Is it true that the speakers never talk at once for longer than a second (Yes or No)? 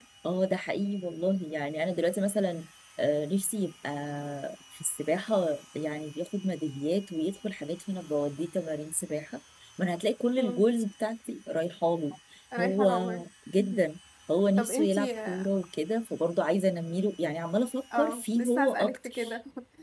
No